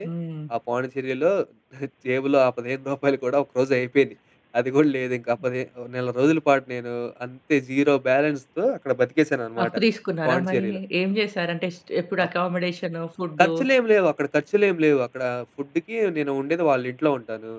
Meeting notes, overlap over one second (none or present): none